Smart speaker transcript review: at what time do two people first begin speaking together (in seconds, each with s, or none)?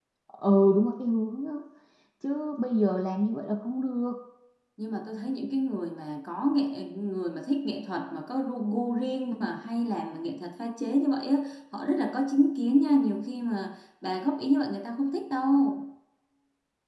none